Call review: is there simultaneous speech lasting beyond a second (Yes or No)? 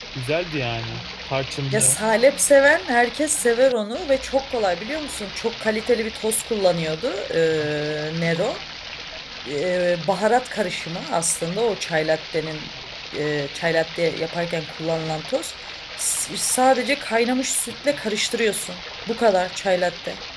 No